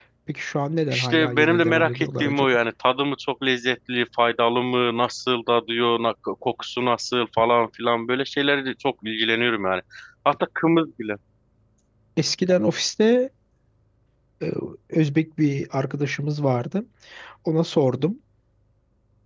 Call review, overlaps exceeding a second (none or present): present